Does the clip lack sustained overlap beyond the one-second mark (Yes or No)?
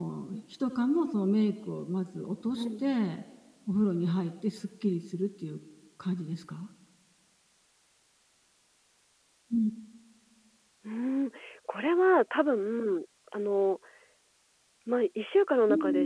Yes